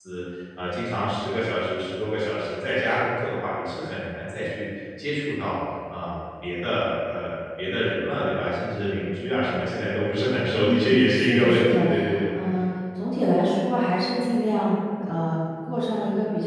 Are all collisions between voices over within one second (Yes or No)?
No